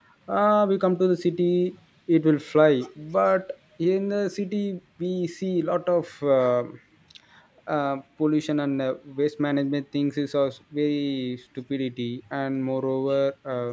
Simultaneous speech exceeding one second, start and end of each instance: none

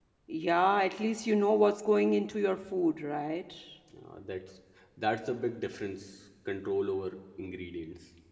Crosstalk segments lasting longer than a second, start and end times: none

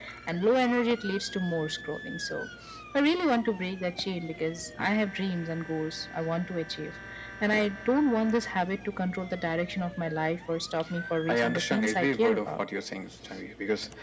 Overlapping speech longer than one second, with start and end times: 11.3-12.6

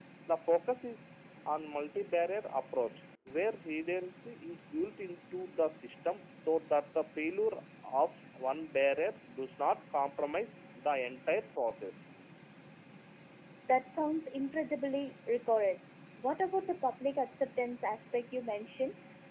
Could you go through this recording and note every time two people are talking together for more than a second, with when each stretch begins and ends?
none

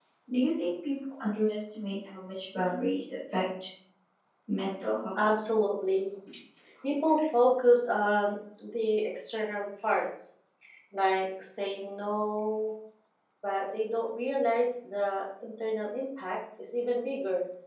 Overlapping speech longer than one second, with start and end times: none

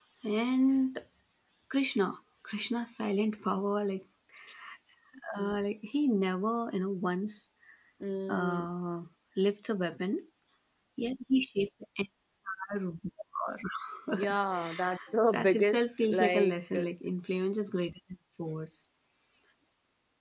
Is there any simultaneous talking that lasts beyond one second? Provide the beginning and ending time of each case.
15.3-16.6

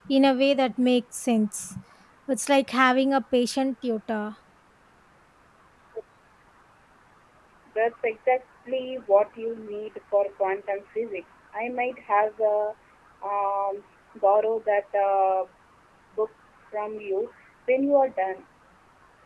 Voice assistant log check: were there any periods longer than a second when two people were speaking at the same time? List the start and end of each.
none

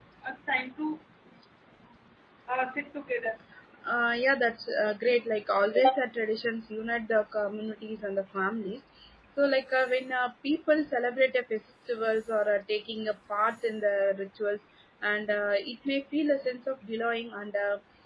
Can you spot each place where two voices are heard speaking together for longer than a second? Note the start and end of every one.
none

